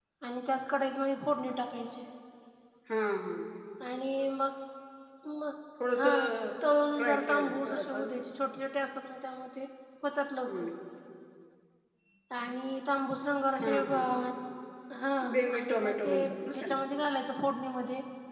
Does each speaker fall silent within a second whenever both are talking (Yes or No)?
No